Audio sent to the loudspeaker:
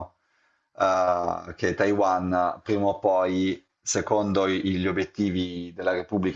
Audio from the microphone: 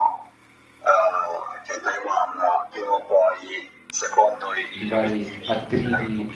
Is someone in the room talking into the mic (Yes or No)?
Yes